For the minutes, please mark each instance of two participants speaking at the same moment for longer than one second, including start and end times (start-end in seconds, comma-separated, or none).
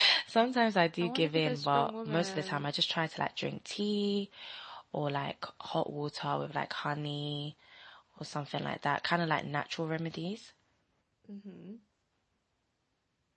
1.0-2.7